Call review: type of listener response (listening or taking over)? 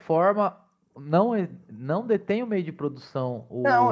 taking over